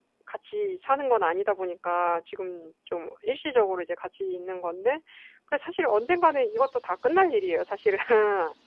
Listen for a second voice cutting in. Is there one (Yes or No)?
No